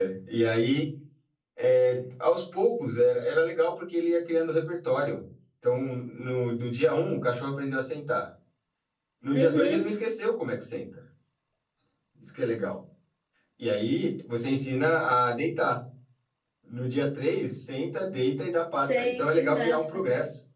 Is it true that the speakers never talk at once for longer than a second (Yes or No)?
No